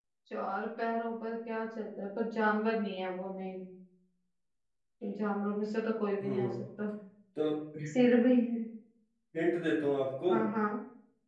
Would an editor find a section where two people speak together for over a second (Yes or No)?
No